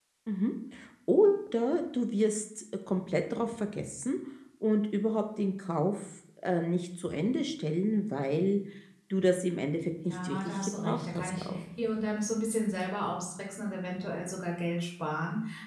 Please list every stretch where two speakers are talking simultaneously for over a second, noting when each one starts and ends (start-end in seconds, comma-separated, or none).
10.1-11.6